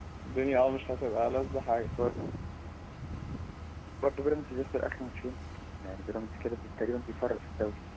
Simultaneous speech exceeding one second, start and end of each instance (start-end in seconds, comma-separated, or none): none